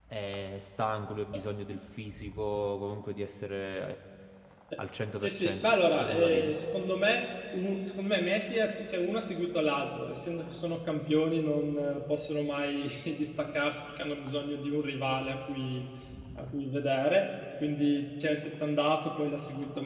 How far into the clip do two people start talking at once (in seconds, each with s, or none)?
5.2 s